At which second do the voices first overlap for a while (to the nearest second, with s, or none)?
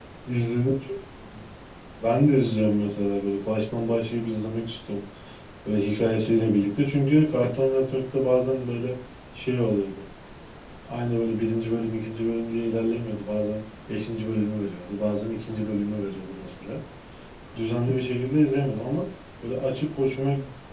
none